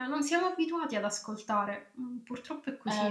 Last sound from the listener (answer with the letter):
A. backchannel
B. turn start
B